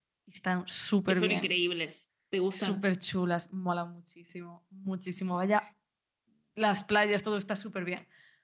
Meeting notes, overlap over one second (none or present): none